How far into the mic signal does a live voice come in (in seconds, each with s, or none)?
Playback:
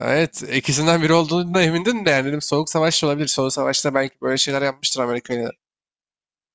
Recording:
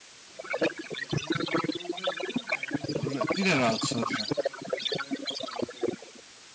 3.0 s